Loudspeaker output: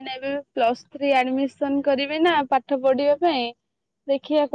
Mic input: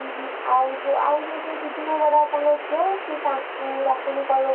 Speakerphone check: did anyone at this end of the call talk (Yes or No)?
Yes